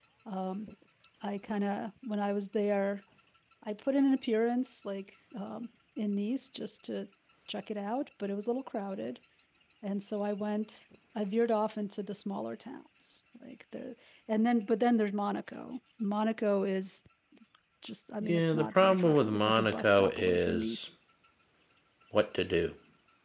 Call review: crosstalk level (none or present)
present